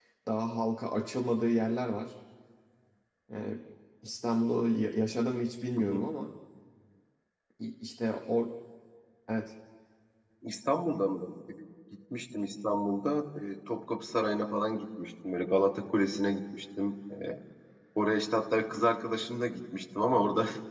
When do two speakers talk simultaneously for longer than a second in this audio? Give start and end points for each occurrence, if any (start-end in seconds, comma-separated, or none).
none